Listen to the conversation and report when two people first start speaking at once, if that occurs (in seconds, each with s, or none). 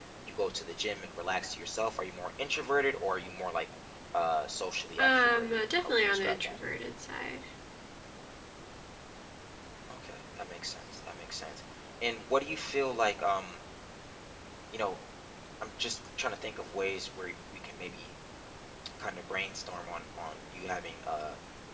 5.0 s